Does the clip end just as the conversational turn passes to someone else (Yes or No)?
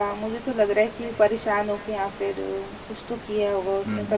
Yes